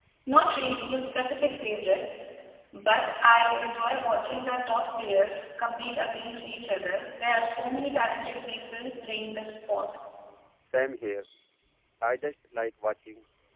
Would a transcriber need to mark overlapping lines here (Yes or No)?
No